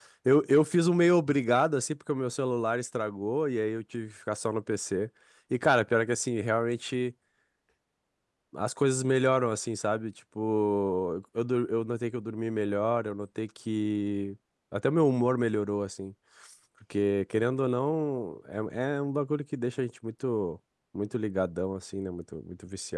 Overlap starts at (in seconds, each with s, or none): none